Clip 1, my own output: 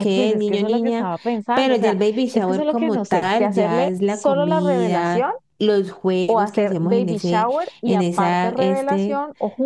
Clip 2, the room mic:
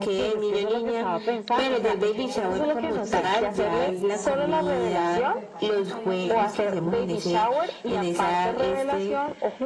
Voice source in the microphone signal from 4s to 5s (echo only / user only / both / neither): both